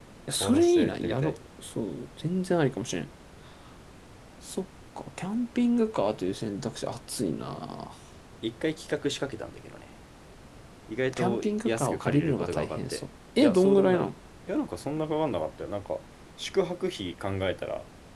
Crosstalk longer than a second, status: present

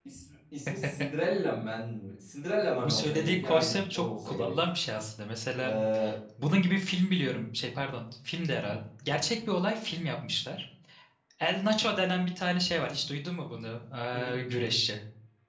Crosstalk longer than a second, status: present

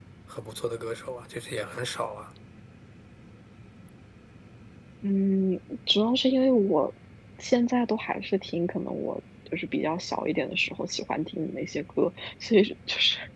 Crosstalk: none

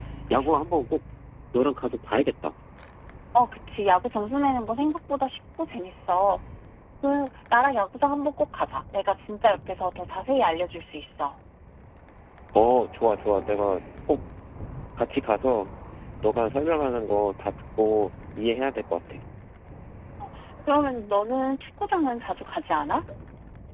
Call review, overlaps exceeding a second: none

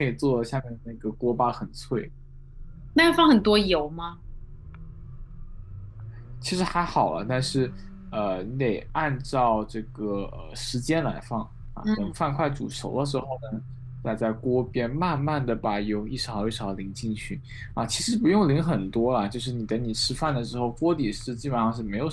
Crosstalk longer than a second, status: none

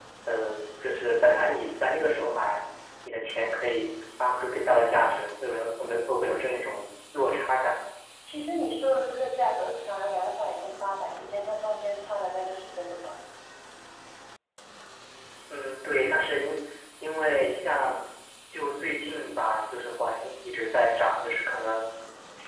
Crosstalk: none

